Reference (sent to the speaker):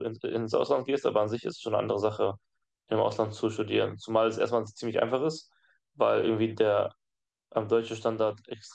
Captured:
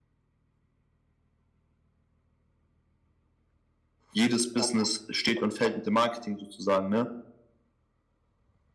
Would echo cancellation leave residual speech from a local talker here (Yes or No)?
Yes